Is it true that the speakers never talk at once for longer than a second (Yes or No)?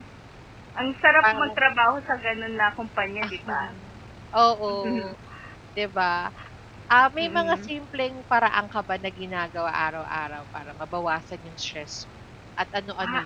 Yes